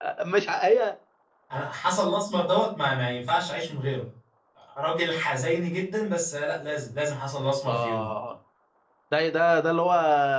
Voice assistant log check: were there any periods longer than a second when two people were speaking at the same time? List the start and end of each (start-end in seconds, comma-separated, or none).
none